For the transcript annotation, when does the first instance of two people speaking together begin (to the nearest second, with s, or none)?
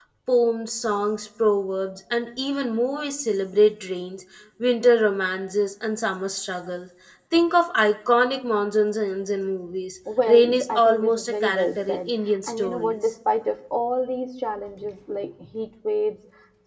10 s